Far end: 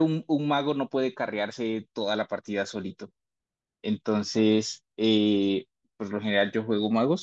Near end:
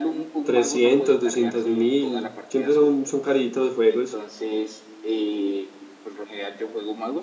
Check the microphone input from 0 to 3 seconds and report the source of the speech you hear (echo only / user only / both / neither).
both